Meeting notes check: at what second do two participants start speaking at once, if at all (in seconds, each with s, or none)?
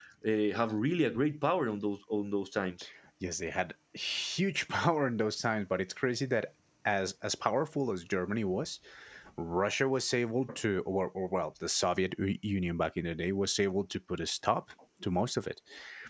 none